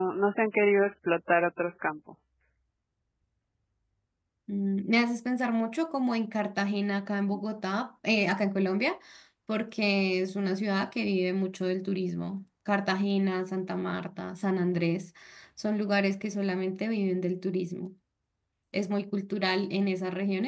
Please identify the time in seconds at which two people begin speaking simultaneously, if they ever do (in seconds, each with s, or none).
none